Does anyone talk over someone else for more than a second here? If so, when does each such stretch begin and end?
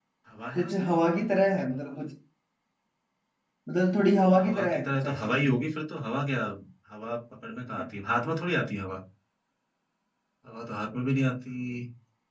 4.4-5.6

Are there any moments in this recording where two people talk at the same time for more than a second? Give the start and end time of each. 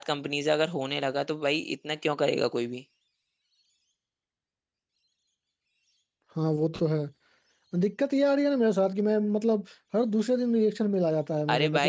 none

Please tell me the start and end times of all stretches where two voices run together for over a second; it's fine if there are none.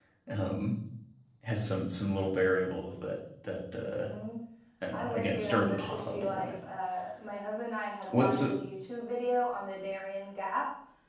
4.9-6.5

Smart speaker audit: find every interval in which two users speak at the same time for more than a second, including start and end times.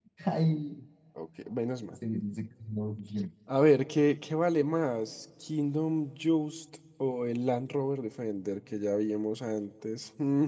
none

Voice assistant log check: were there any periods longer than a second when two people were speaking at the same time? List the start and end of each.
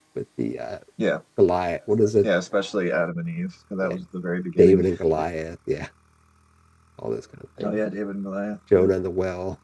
none

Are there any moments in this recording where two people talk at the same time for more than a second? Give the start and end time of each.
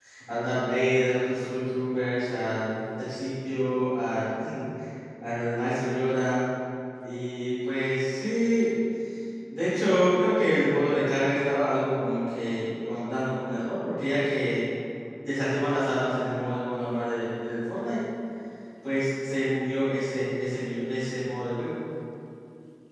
none

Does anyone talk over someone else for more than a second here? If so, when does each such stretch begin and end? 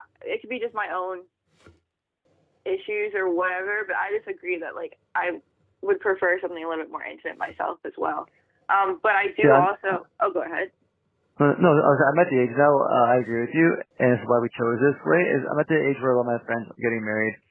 none

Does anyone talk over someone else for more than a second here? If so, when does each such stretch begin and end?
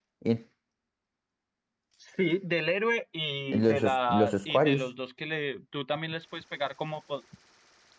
3.5-4.9

